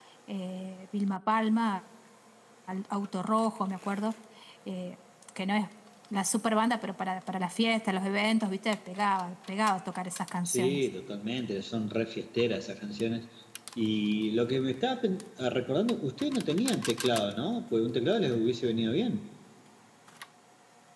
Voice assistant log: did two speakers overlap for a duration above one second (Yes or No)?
No